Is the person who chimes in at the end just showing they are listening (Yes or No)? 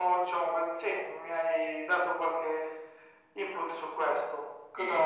No